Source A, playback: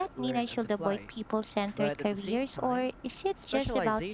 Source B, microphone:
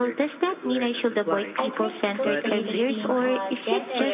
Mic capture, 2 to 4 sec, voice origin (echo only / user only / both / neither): both